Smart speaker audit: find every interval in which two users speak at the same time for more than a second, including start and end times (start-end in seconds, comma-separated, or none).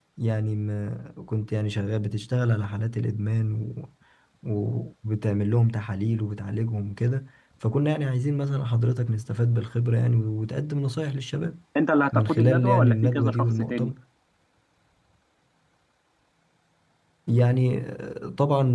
12.1-13.9